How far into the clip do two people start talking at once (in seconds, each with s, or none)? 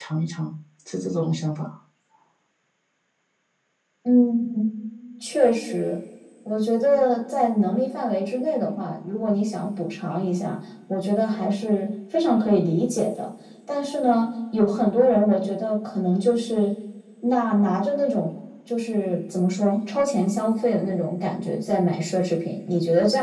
none